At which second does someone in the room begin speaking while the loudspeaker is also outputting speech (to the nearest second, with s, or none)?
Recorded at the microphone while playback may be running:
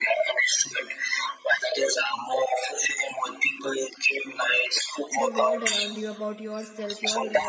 5 s